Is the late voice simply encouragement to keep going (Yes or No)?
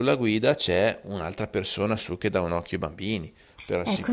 No